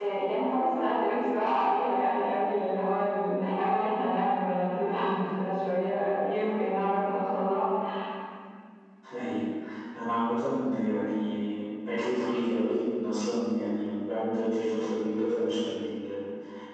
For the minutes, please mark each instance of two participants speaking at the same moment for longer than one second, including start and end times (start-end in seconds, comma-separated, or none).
none